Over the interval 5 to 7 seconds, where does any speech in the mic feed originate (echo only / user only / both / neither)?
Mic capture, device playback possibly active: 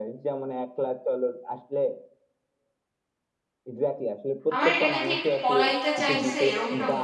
both